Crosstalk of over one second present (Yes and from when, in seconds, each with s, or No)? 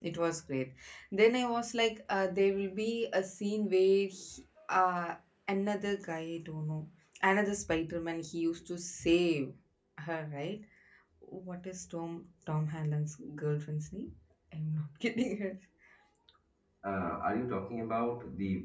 No